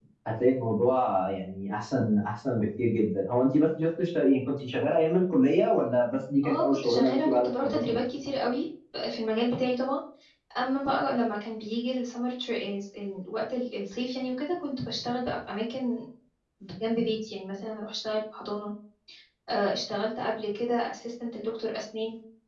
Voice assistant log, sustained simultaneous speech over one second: present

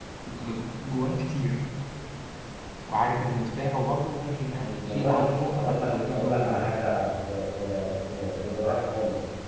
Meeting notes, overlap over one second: present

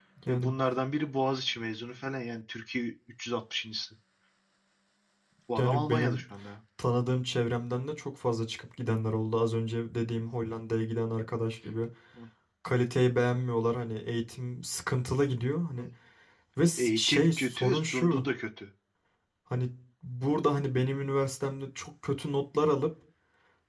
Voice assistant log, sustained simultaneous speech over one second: present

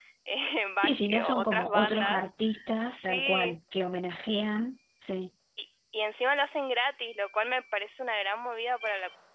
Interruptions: present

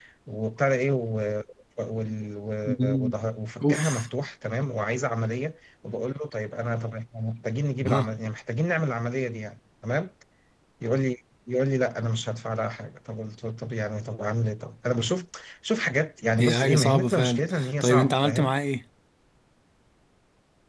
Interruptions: present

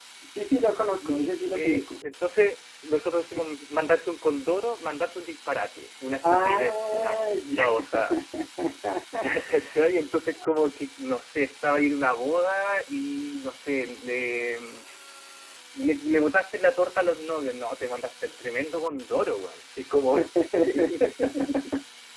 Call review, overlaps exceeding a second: present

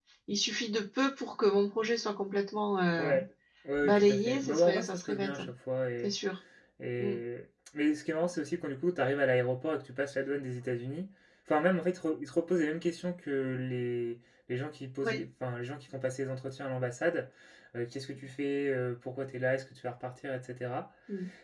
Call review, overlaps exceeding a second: present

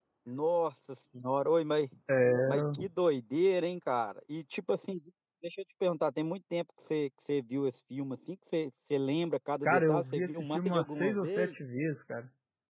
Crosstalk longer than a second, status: present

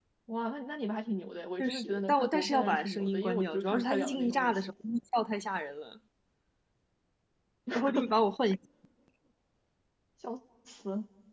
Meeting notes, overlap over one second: present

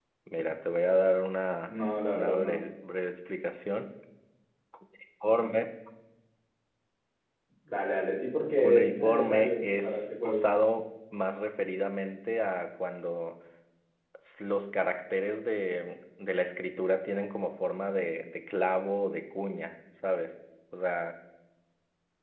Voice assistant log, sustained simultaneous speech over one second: present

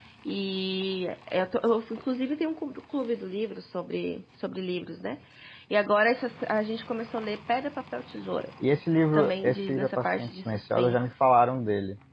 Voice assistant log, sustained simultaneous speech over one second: present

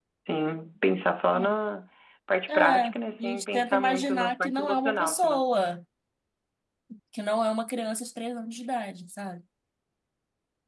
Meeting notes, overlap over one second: present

